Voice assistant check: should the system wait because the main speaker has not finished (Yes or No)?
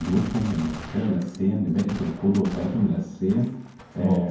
Yes